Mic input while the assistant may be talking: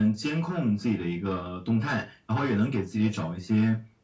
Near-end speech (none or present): none